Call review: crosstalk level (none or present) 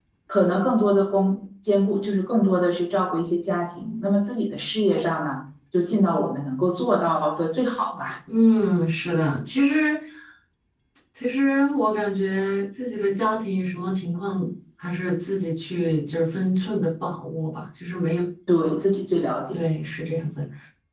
none